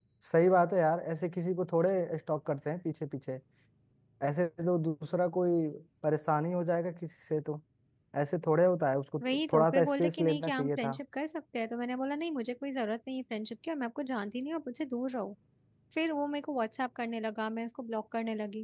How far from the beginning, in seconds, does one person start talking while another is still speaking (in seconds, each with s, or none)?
9.2 s